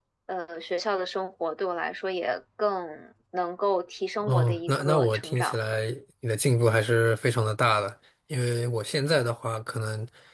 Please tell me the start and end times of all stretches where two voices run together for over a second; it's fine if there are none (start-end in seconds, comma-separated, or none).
4.2-5.6